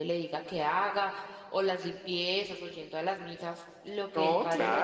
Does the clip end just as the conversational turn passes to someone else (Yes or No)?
Yes